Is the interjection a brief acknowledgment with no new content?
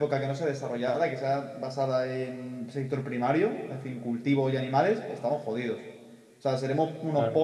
Yes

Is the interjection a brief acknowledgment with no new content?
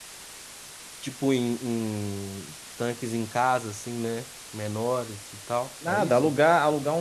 No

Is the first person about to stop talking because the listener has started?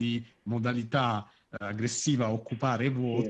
No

